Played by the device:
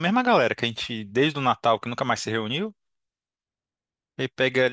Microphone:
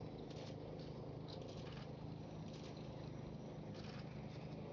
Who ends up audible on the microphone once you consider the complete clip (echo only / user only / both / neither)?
neither